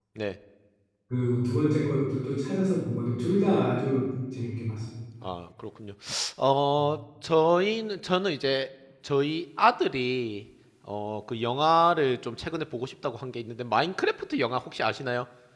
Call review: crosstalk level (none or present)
none